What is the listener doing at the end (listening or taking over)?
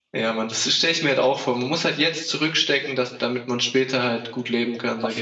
taking over